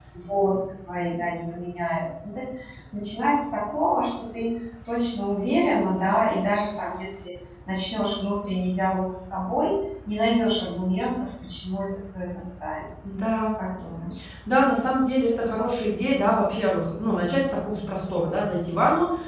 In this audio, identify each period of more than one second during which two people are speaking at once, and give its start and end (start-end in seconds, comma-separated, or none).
none